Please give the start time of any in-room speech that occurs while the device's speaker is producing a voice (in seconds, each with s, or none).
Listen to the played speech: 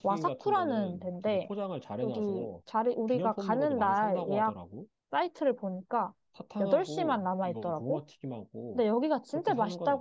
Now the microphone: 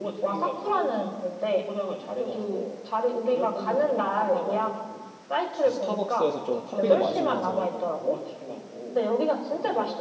5.5 s